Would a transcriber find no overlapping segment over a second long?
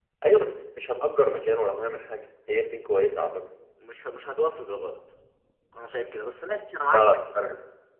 Yes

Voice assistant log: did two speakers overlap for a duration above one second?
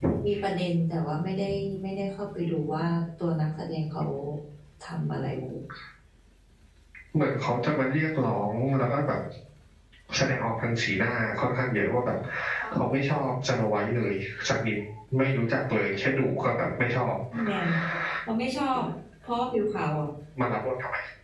No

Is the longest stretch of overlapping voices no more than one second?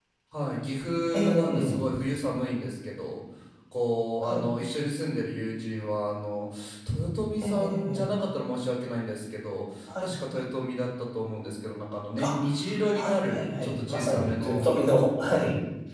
No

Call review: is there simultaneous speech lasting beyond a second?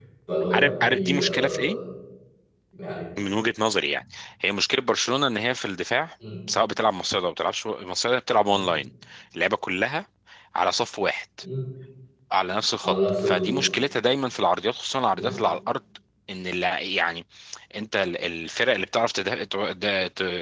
Yes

